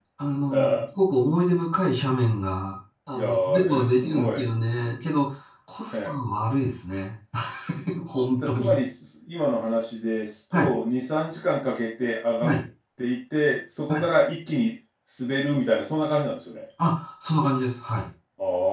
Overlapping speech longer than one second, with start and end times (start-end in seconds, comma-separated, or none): 3.1-4.4